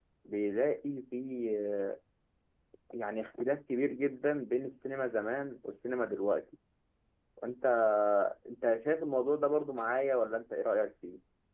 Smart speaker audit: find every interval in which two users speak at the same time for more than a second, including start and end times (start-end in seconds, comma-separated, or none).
none